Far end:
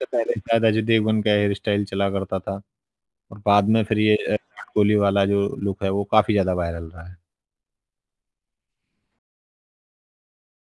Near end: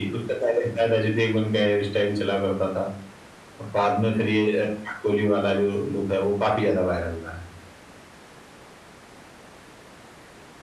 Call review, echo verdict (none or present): present